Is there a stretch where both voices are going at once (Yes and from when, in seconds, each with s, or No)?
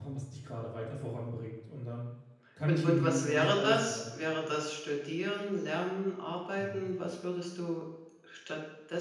Yes, from 2.7 s